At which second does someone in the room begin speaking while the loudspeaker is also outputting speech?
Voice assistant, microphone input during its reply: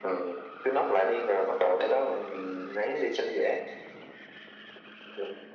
none

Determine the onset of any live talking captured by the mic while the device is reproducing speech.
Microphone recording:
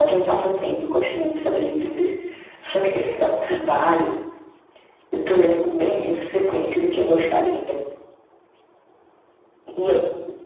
none

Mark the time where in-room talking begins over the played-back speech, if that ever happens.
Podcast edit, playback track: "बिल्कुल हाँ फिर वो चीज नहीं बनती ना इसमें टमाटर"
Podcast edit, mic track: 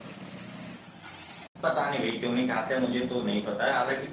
1.6 s

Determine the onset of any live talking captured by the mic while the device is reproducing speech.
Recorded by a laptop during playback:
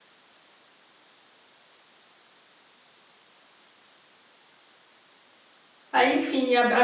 5.9 s

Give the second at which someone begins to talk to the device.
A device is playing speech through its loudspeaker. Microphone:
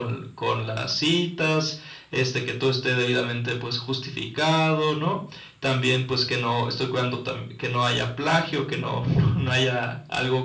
none

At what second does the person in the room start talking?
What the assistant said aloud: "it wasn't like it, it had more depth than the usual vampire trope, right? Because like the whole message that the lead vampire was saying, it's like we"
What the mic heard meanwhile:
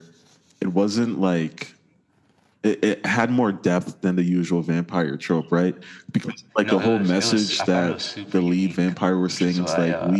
6.6 s

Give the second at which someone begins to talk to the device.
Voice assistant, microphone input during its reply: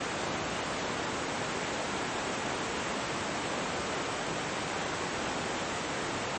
none

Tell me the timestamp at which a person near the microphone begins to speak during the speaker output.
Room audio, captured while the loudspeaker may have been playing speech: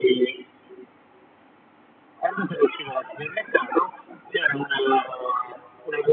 none

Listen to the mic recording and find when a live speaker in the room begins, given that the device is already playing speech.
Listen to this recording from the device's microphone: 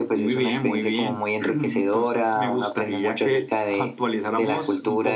none

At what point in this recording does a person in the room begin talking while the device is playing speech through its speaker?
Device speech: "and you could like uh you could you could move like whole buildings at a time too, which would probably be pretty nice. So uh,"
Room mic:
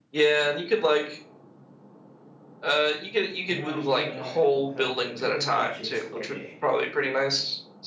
3.5 s

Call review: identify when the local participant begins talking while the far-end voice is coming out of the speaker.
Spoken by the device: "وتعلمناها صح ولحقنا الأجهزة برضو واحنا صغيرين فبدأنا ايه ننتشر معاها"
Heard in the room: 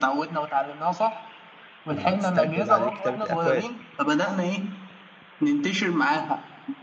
1.9 s

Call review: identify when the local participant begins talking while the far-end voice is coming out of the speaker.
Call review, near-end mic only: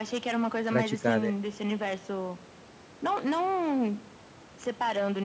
0.7 s

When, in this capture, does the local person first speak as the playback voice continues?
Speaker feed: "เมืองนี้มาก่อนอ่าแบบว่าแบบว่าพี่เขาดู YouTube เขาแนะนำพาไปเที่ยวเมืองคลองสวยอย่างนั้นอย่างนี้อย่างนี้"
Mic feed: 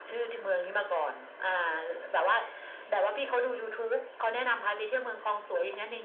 none

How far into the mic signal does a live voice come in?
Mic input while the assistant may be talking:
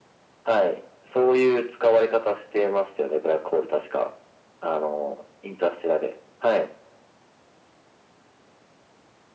none

